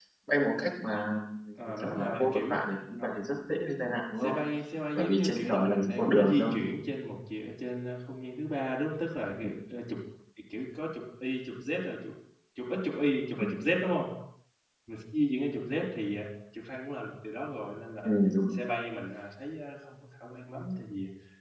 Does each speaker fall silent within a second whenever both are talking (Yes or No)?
No